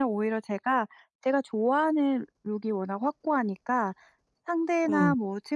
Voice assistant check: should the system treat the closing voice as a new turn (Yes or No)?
No